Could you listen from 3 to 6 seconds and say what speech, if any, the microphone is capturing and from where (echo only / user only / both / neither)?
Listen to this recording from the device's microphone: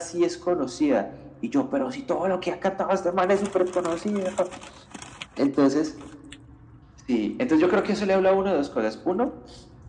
echo only